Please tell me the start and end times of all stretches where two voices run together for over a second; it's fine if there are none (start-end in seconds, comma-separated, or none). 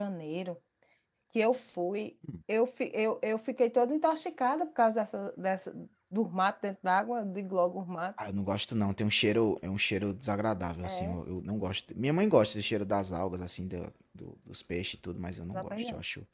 none